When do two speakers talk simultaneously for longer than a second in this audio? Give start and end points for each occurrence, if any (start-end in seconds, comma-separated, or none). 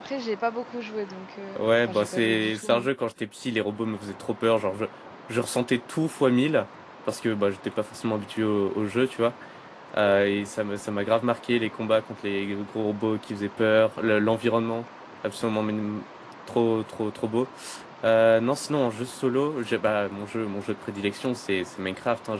1.6-2.9